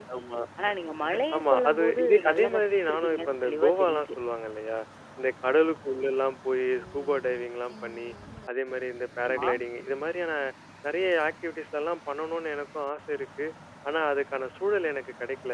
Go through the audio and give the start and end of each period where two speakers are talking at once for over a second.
1.4-4.1

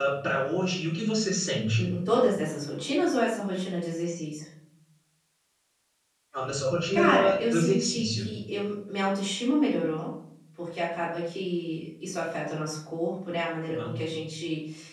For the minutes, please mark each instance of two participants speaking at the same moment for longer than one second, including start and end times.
6.9-8.3

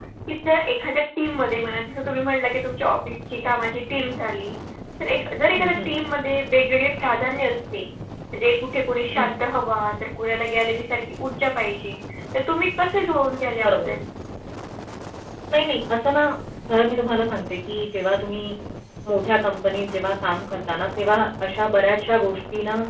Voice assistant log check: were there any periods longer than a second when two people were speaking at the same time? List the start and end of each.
none

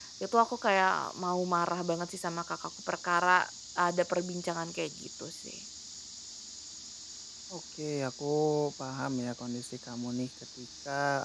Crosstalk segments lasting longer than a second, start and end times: none

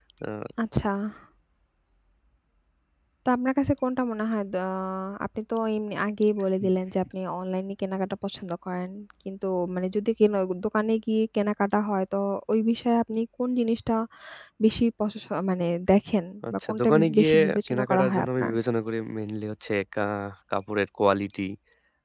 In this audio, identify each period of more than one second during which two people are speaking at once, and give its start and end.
16.5-18.5

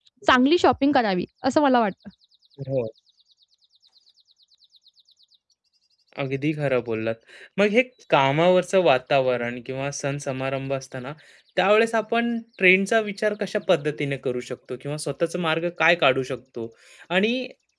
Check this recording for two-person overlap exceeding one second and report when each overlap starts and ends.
none

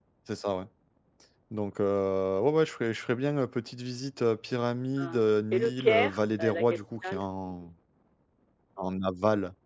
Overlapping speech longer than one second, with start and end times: 5.0-7.7

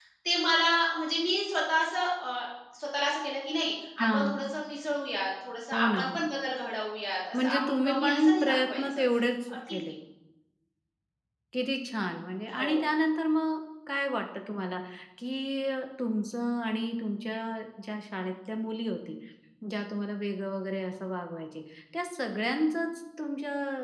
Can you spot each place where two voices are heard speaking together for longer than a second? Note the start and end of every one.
7.3-9.0

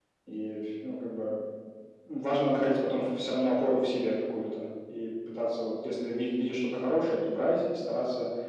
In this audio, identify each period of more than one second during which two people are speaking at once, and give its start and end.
none

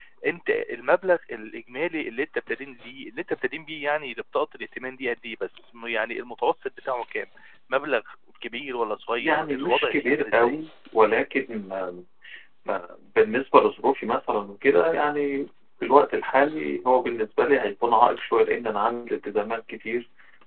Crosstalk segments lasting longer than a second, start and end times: 9.2-10.6

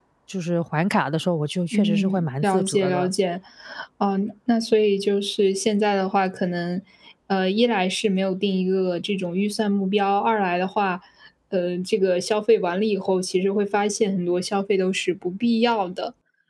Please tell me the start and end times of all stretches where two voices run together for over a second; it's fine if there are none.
1.7-3.1

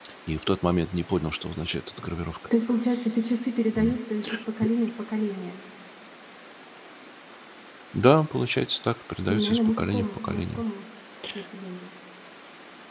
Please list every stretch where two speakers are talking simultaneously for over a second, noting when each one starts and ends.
9.3-10.6

